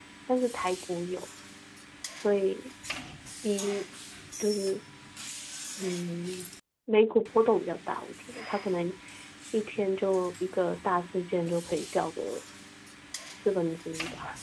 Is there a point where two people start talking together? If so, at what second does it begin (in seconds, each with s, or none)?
none